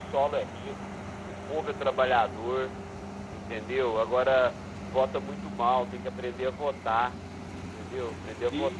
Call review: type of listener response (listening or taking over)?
taking over